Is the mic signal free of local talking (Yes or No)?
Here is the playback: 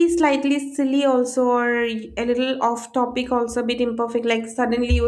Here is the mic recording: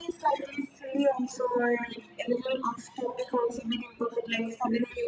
Yes